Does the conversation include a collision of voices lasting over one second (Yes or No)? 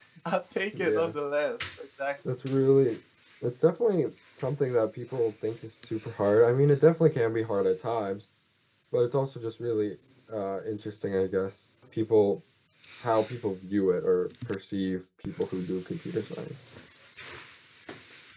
No